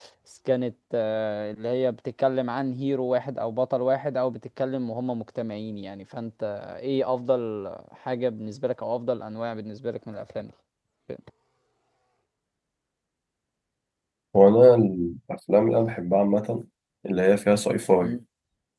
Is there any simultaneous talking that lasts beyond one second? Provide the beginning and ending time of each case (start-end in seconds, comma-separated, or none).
none